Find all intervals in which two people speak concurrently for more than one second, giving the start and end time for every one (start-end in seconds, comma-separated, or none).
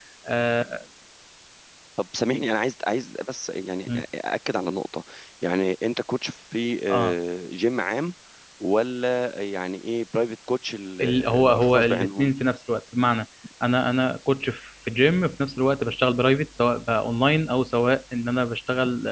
11.0-12.3